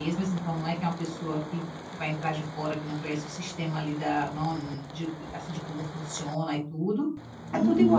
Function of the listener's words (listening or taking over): taking over